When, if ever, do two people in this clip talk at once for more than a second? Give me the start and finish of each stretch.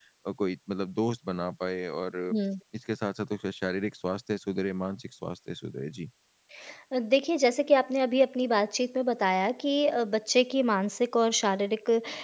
none

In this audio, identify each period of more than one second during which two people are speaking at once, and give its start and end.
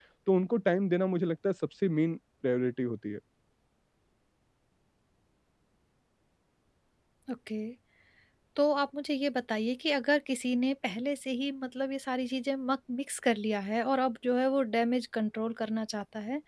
none

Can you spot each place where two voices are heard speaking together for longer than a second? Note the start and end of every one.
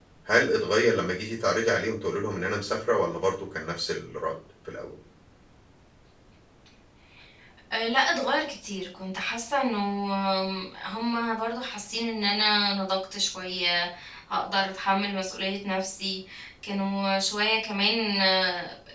none

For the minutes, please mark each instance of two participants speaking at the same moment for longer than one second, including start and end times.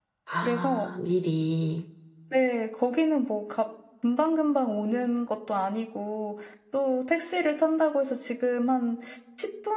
none

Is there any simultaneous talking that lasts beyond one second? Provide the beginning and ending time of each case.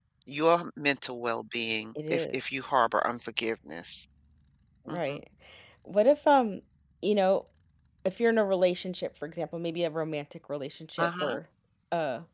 none

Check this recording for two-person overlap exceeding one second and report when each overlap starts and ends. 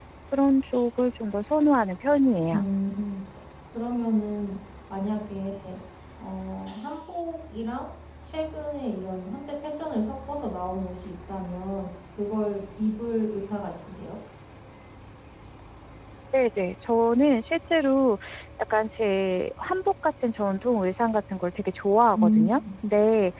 none

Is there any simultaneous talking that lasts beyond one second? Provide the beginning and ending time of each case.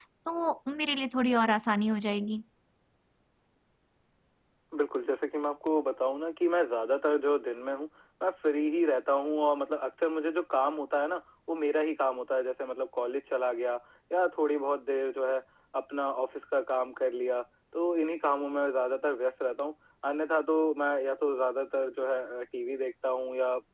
none

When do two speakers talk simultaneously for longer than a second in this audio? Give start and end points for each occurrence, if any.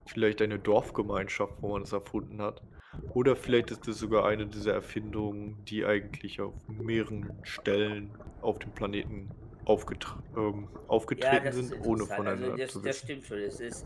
11.2-13.1

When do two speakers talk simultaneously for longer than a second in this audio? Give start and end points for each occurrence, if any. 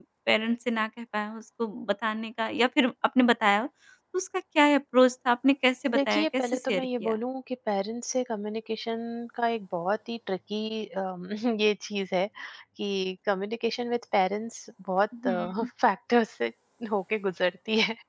5.9-7.1

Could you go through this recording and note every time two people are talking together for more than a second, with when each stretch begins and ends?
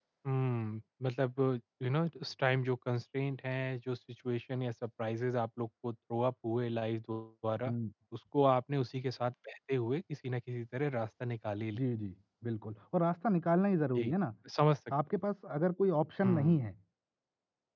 none

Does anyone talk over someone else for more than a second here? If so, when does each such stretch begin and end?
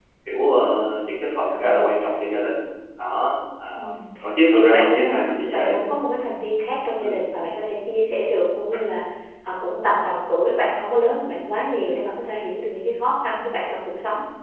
4.5-5.7

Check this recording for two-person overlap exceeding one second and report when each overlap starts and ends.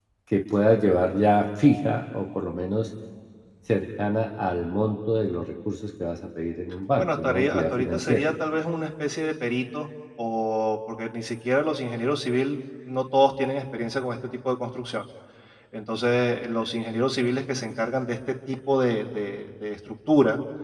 7.0-8.3

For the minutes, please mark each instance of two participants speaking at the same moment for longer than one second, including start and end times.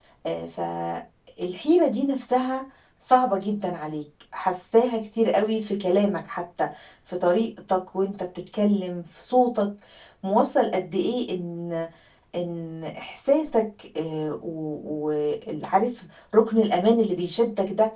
none

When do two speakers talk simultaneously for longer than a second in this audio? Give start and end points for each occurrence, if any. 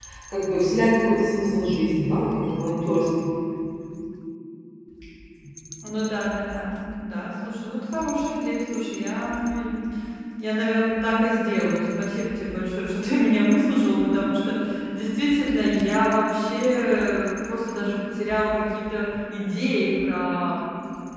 none

